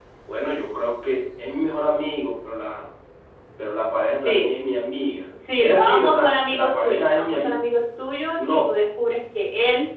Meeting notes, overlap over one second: present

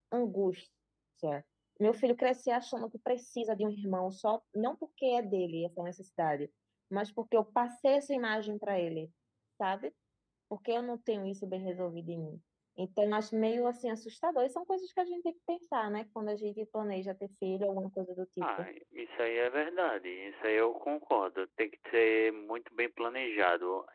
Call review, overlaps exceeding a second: none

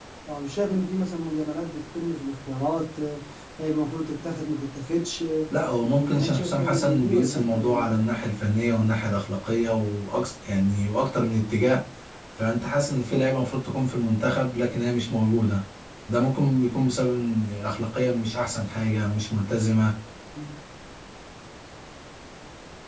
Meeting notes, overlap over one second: present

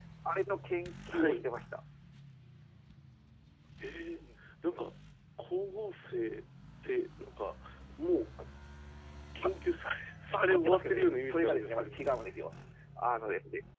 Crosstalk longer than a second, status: present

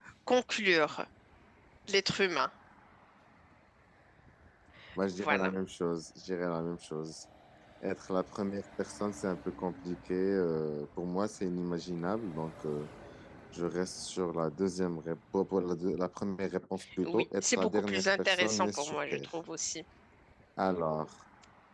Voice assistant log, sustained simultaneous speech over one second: present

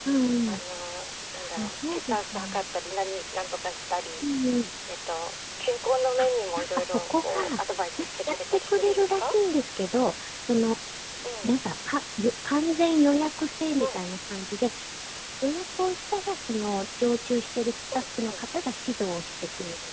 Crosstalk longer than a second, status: present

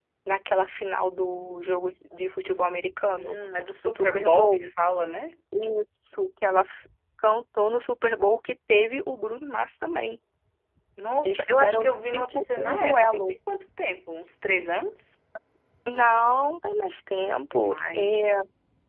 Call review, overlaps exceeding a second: present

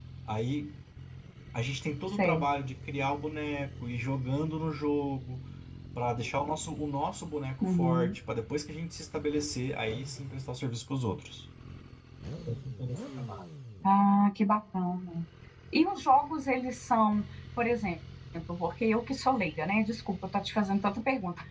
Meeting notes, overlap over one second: none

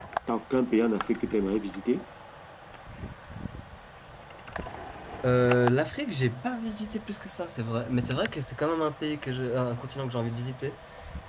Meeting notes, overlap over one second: none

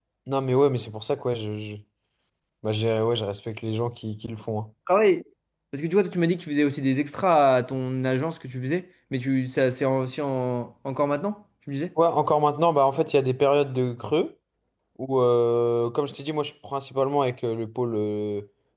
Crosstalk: none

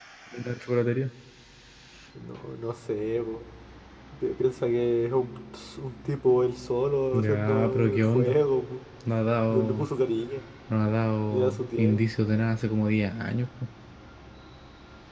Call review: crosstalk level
present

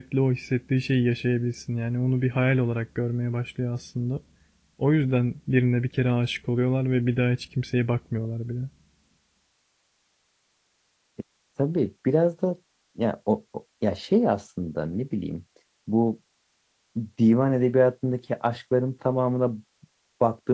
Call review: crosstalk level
none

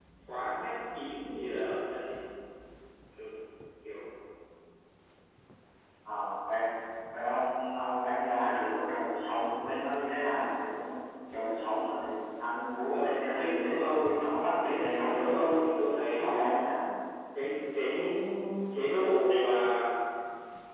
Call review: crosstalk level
present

